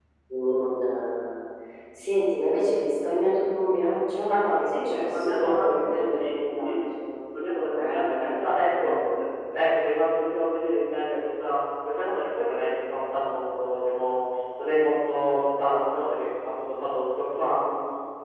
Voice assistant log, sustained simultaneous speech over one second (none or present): present